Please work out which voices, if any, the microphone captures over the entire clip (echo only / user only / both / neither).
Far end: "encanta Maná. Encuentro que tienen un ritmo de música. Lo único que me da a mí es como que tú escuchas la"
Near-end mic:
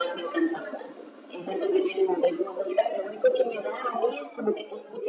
echo only